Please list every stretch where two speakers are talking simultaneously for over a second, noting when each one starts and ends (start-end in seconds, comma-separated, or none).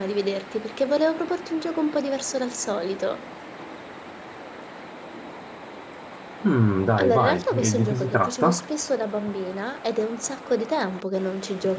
7.0-8.6